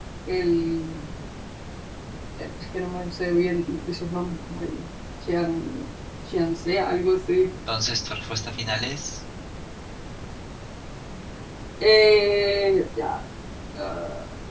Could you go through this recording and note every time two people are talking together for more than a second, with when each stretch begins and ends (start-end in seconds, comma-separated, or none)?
none